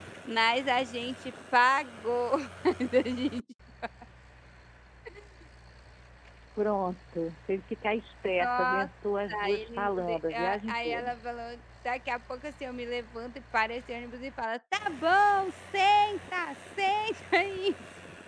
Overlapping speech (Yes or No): Yes